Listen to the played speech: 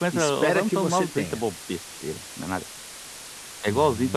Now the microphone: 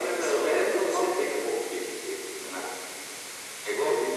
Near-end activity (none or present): none